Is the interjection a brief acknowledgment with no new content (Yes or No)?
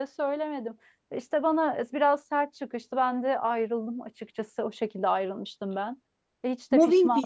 No